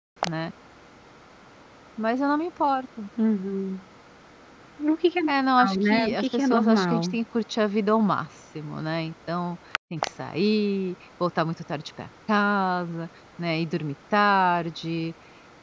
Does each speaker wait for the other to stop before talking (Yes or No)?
No